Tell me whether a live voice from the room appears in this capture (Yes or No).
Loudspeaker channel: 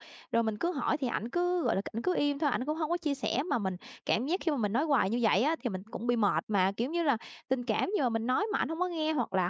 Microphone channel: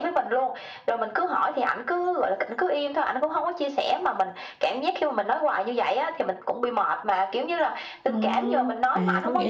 Yes